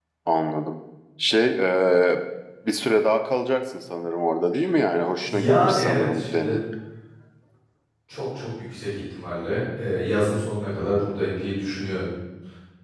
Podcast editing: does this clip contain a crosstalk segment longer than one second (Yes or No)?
Yes